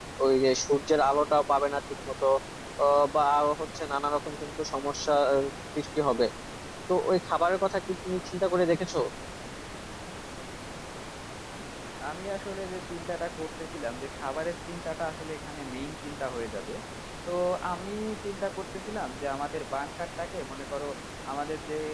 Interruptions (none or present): none